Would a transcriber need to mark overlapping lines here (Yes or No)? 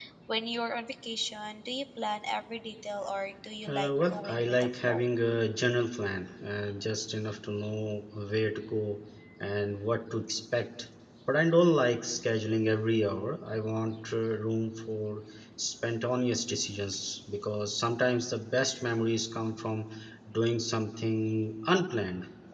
Yes